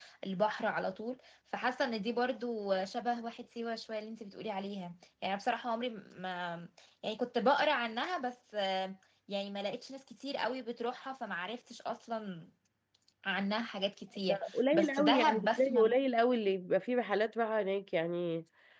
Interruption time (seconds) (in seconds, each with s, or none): 14.2 s